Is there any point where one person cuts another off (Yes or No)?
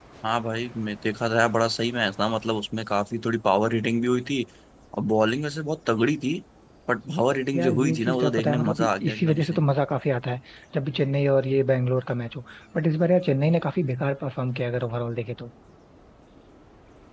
Yes